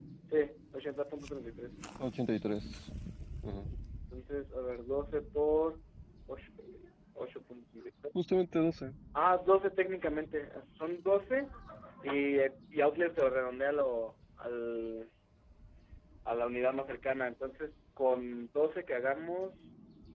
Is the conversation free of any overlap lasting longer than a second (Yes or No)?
Yes